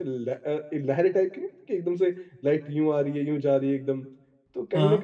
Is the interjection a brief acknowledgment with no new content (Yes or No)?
Yes